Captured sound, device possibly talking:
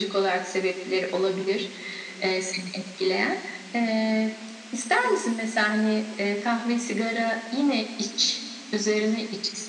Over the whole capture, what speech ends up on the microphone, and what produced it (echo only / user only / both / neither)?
echo only